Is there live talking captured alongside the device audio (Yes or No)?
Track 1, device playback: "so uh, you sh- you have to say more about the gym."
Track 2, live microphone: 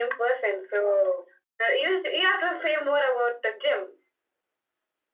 No